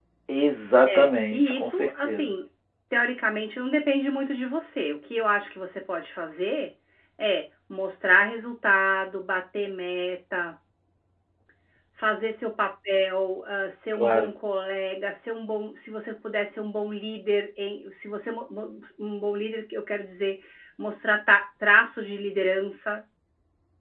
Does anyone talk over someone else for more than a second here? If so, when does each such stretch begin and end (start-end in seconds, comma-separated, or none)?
0.9-2.3